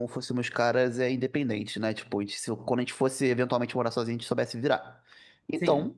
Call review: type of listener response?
listening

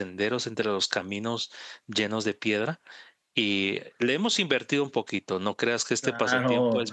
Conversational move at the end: taking over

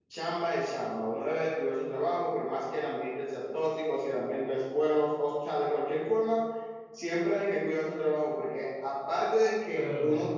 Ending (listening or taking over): listening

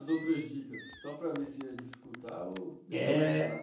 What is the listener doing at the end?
taking over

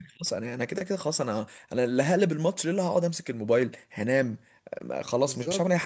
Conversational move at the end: taking over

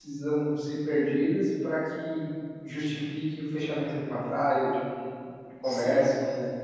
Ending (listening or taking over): taking over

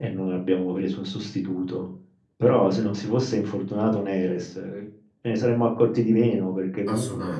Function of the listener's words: listening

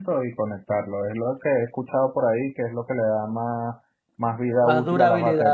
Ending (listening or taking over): taking over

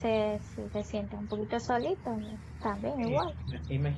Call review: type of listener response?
taking over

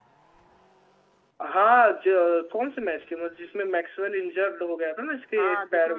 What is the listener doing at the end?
taking over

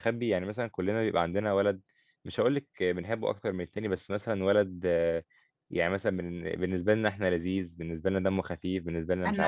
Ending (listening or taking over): taking over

